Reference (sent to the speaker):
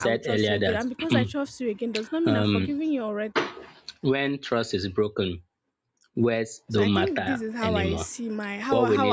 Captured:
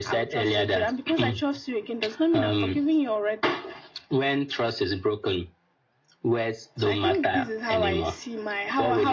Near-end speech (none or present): none